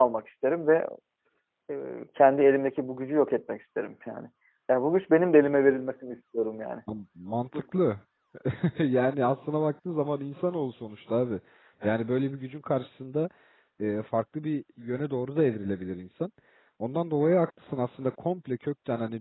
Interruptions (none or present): none